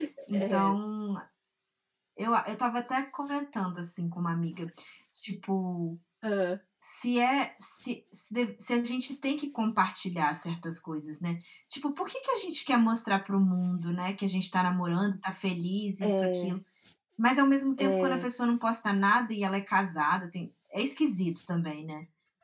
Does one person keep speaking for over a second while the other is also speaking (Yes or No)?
No